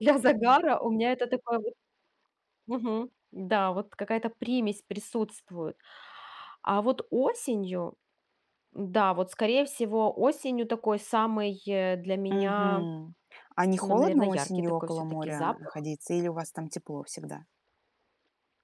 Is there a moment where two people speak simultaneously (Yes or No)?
Yes